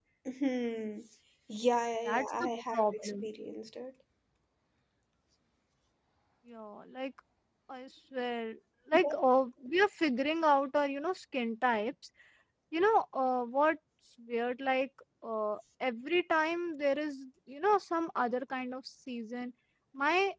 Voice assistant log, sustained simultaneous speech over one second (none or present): present